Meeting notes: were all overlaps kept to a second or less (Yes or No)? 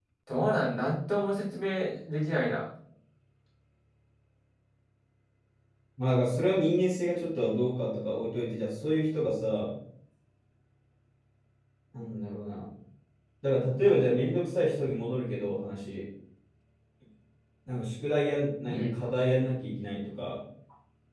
Yes